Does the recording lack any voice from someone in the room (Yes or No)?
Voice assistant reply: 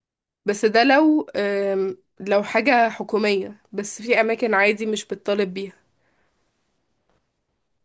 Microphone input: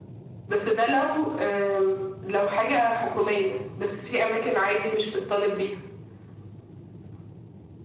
Yes